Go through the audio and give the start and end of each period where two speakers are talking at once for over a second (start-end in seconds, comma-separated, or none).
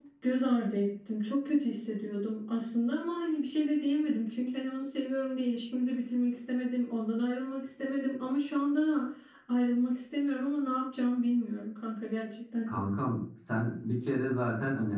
none